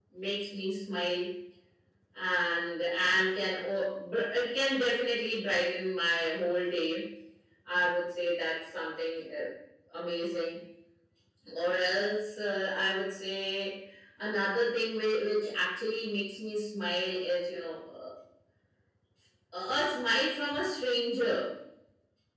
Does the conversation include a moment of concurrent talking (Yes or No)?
No